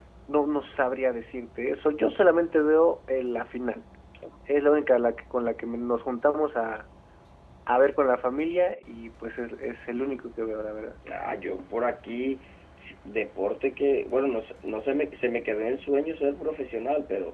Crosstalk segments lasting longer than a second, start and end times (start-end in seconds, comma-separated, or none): none